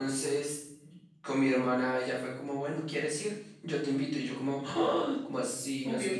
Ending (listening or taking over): listening